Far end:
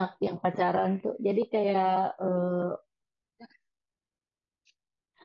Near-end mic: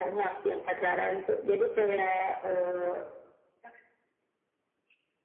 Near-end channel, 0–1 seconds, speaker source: echo only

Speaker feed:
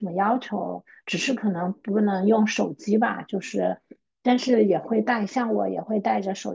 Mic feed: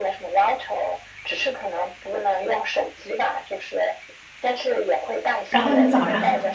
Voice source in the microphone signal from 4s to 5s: echo only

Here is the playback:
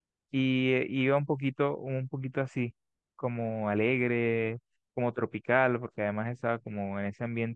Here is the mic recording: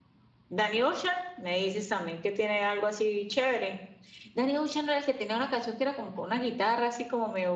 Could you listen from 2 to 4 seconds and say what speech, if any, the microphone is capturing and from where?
user only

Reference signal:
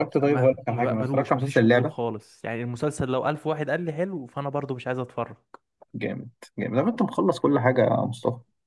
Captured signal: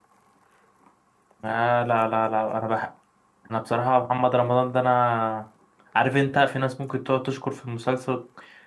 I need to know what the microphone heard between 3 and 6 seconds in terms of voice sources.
user only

